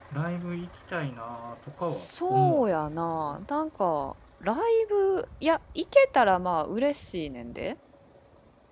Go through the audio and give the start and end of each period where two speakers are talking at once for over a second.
1.9-3.4

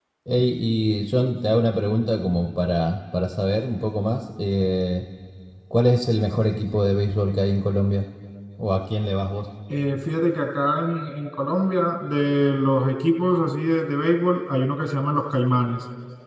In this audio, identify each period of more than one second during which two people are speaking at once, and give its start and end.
none

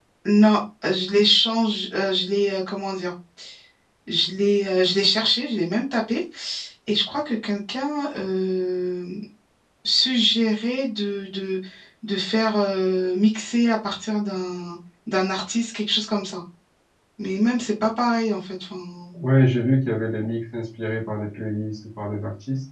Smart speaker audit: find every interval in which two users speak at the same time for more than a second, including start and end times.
none

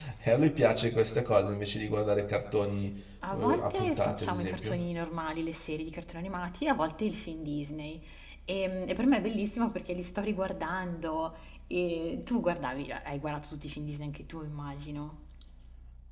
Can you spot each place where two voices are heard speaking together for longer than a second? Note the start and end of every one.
3.3-4.8

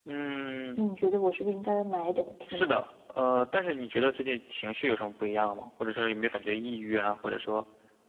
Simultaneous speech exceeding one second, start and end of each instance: none

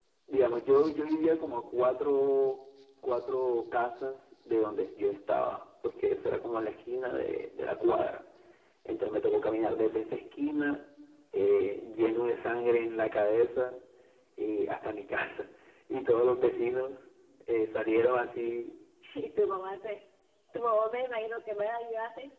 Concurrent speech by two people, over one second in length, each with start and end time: none

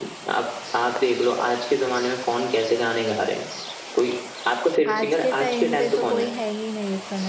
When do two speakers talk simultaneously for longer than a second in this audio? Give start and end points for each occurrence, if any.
4.9-6.2

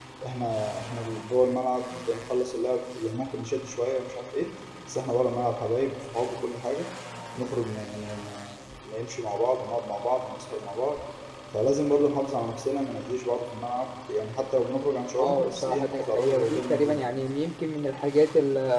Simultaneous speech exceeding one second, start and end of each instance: 15.2-17.1

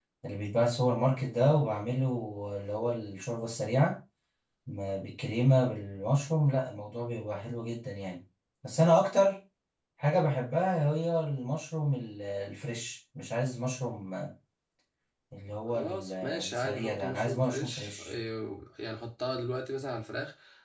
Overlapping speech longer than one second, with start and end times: 15.7-18.1

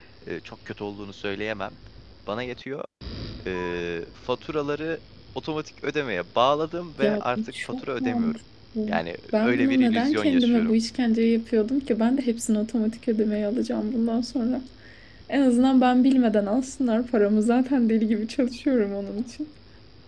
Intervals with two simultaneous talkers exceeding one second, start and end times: 7.0-8.4, 9.3-10.8

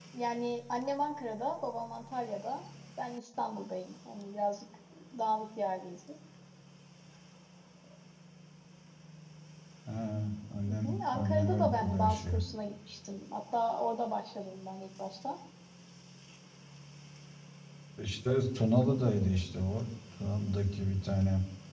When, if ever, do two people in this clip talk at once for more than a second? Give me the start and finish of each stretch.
10.7-12.4

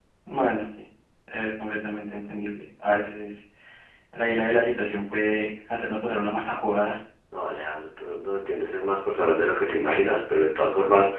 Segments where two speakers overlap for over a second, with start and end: none

